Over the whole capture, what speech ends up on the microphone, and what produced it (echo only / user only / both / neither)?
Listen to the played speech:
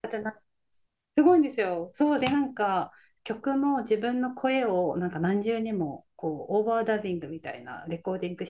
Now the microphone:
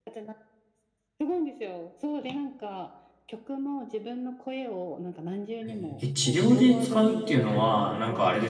both